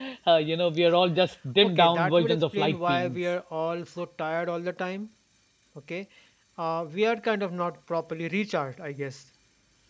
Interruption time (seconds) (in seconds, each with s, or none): 1.6 s